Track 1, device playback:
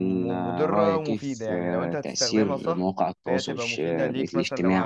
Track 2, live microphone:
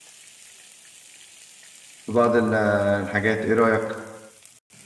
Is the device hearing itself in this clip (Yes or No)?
No